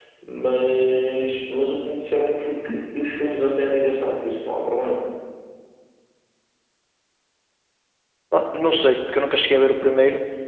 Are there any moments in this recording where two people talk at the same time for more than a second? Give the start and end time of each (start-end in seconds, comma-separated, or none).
none